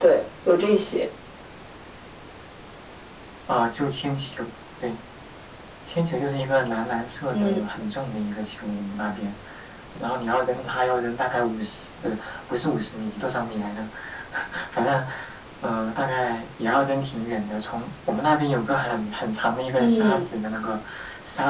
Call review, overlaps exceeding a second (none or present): none